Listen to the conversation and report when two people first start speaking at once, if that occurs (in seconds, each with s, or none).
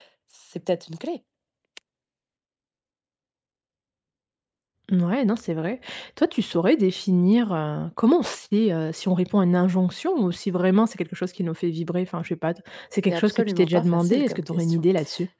13.1 s